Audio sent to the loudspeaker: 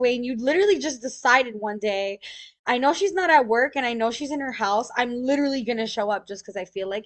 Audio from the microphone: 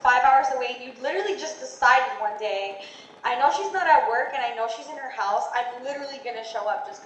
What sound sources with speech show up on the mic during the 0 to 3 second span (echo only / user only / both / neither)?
echo only